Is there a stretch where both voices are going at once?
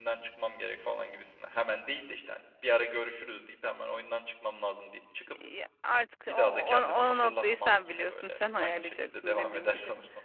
Yes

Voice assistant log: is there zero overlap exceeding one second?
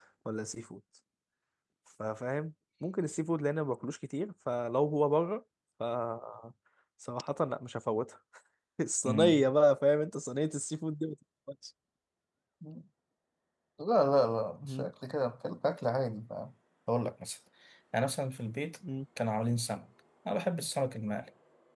Yes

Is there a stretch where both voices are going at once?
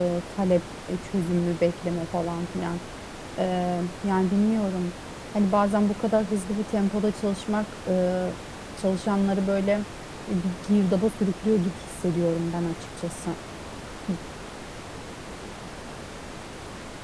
No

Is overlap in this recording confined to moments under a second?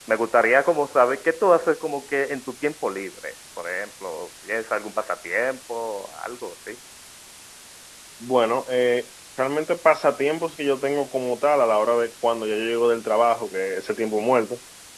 Yes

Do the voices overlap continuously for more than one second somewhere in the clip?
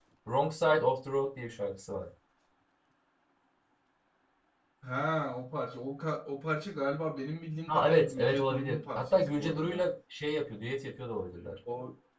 Yes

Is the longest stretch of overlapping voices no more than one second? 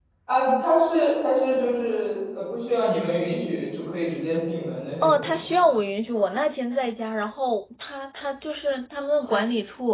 Yes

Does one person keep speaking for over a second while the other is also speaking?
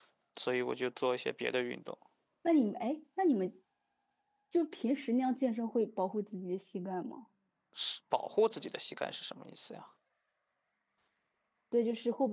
No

